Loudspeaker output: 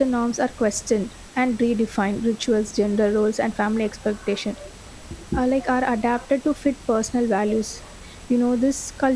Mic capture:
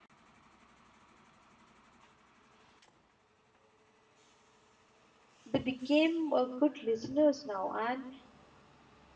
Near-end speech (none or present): present